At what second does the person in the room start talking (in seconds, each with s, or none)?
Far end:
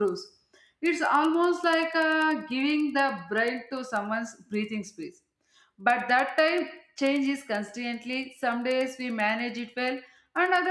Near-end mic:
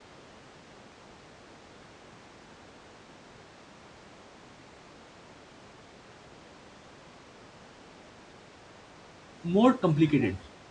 9.4 s